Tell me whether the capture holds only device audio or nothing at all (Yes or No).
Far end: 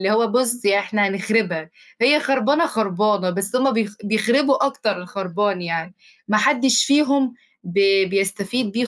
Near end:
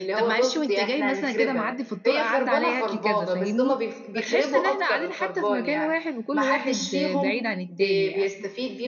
No